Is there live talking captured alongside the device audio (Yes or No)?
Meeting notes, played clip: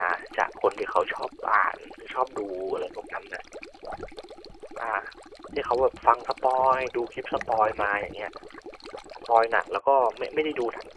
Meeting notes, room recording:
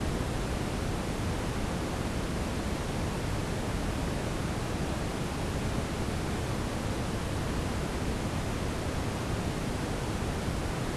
No